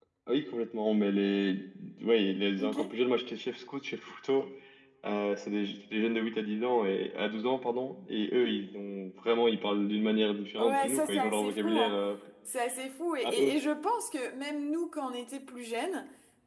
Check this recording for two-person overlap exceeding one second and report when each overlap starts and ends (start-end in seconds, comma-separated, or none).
10.6-12.0